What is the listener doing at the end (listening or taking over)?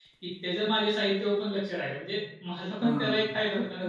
taking over